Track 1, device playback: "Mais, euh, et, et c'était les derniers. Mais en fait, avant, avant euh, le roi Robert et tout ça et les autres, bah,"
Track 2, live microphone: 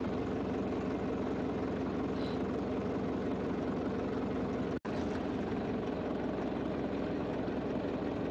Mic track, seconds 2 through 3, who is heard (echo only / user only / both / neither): neither